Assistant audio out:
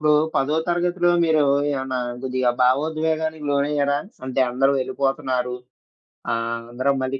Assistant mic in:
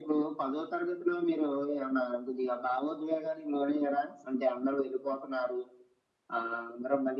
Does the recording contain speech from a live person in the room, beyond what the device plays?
No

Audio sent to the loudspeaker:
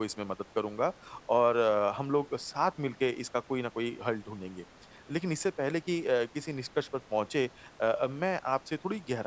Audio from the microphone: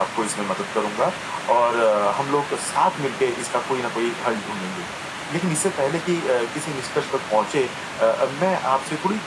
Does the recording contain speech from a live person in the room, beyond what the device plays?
No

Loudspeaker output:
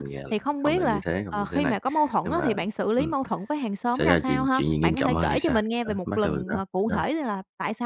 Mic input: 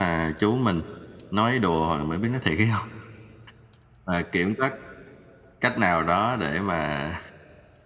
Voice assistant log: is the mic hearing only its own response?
No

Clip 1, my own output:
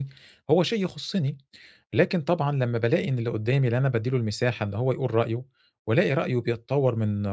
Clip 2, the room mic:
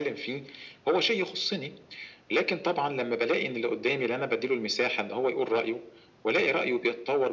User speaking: No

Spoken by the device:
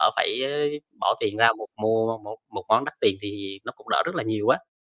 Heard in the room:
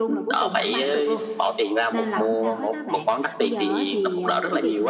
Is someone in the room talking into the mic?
Yes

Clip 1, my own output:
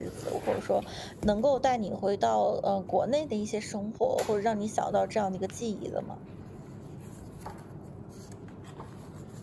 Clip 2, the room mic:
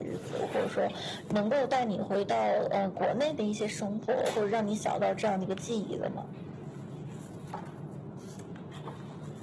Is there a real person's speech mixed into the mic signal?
No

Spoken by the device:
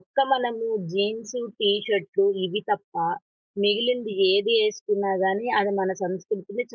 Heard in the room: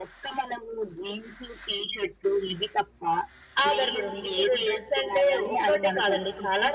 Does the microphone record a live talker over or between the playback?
Yes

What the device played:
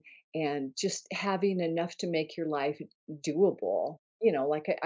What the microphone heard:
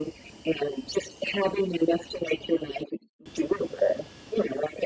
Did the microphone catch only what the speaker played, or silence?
Yes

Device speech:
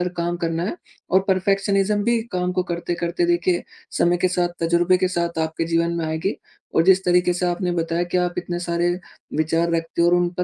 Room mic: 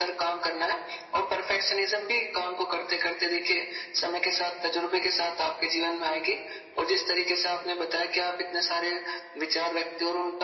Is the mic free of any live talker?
Yes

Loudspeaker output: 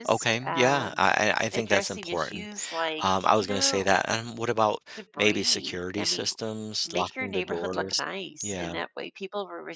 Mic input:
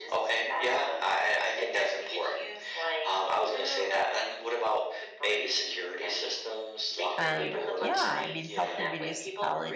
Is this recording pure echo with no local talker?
No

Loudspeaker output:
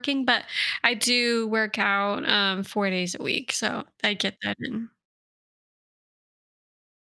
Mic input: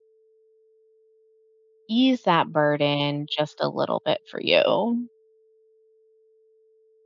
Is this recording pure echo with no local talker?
No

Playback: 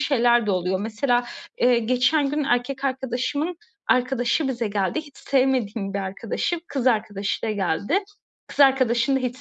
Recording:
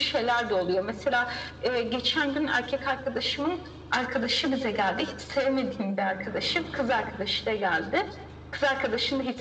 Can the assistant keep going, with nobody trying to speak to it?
Yes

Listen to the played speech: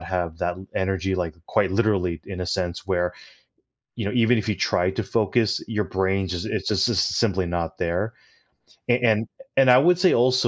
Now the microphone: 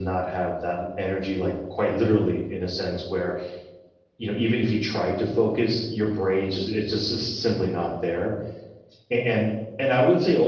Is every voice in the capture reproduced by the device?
Yes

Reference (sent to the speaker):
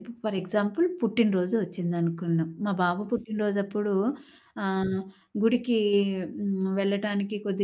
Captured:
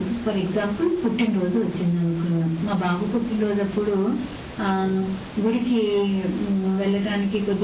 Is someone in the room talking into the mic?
No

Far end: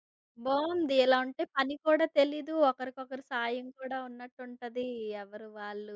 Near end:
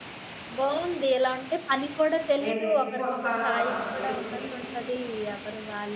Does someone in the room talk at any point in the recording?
Yes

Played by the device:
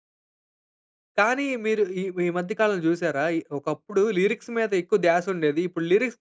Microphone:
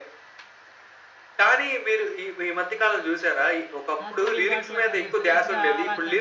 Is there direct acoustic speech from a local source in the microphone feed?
Yes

